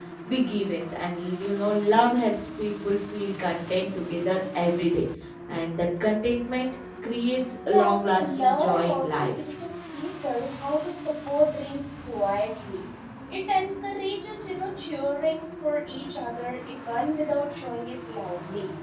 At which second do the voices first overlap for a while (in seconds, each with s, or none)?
7.6 s